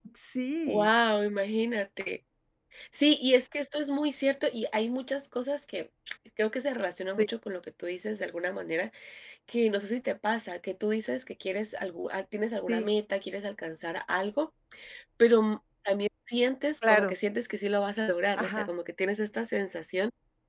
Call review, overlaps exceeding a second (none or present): none